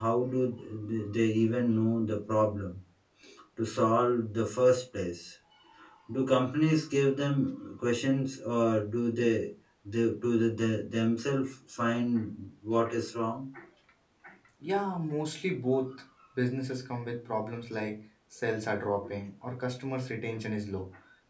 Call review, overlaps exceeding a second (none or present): none